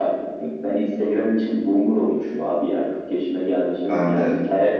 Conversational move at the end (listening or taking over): listening